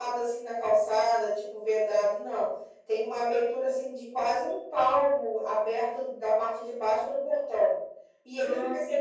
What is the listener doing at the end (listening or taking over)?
listening